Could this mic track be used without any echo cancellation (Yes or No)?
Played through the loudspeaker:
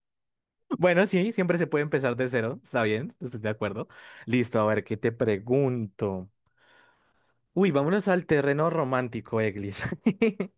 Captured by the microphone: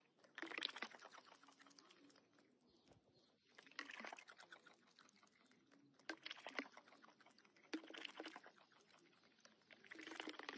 Yes